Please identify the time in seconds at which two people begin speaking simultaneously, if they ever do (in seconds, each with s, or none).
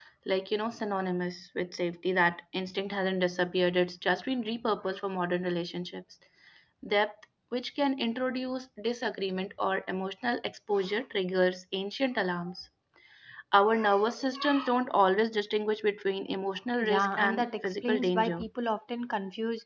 16.8 s